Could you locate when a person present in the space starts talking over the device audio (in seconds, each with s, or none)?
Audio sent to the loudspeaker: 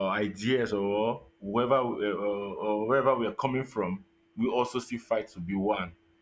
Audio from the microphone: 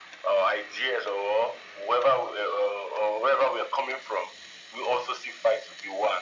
none